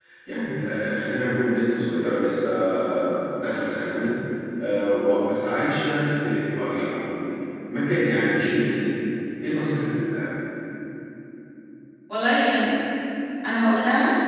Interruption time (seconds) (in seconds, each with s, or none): none